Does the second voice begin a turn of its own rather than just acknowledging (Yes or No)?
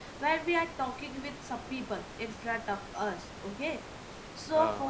No